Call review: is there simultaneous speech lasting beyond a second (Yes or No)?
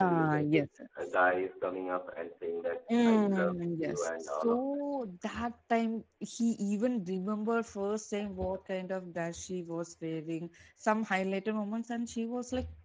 Yes